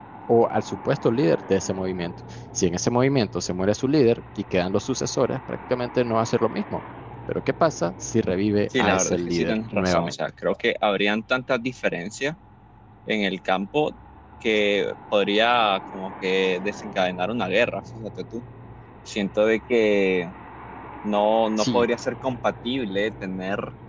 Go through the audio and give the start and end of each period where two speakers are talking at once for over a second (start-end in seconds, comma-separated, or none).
8.8-10.1